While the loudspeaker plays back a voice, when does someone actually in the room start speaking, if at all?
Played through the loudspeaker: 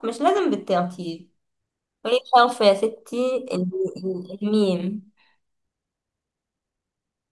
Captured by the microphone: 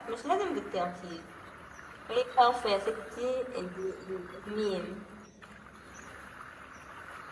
none

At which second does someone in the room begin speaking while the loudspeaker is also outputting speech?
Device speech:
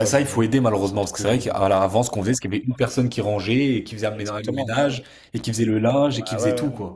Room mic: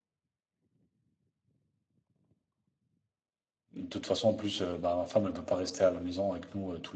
3.7 s

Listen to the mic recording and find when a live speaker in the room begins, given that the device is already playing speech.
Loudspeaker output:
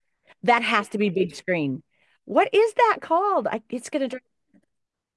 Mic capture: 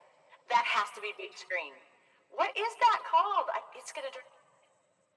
none

